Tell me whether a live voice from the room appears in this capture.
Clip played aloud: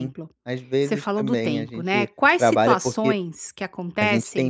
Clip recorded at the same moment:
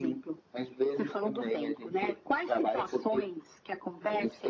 No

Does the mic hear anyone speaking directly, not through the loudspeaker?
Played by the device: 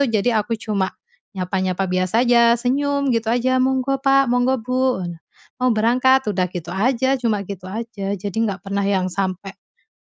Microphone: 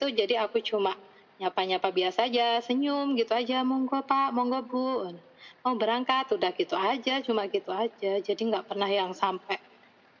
No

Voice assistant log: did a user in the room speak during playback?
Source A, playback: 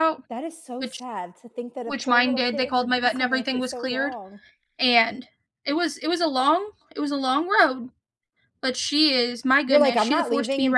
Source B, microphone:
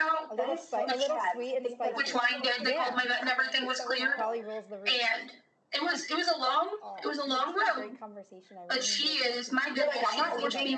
Yes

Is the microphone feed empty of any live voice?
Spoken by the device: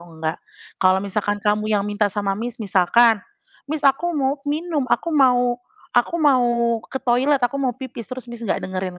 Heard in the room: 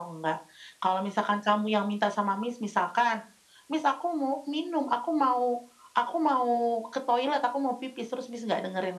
Yes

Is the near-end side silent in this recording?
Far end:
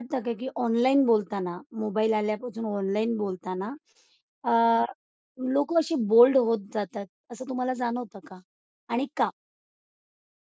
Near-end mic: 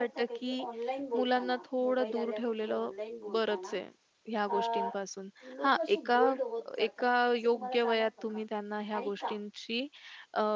No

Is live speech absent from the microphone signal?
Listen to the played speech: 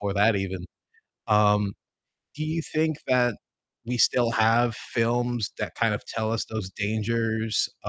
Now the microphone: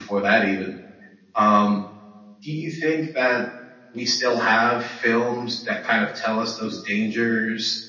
Yes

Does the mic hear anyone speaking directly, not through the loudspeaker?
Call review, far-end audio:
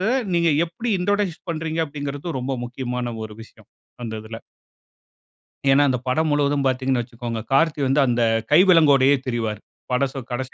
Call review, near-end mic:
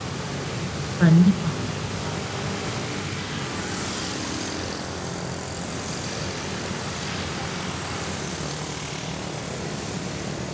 Yes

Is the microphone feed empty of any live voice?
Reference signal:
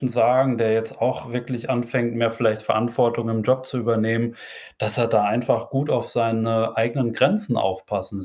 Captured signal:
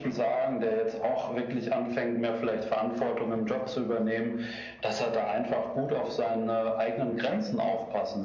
Yes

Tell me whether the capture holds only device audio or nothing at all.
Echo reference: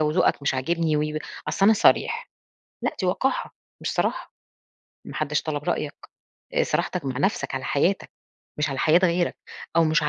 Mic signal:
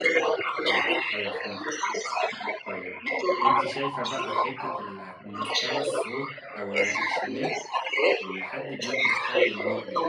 No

